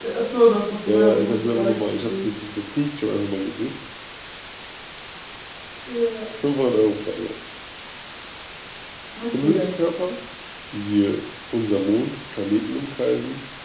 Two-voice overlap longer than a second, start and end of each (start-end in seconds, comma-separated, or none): 0.9-2.3